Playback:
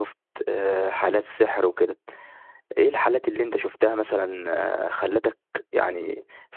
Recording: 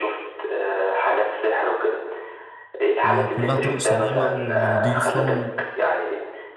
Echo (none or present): present